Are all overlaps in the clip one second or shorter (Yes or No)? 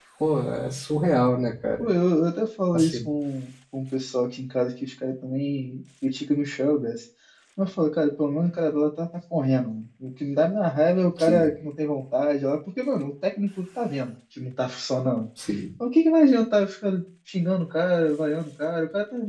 Yes